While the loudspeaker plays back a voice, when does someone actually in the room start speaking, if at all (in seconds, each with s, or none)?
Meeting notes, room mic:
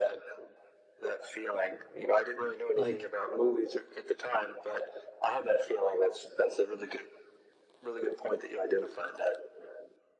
2.8 s